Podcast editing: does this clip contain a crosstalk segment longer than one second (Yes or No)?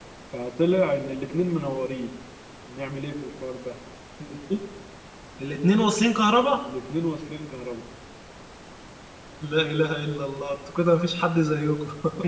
No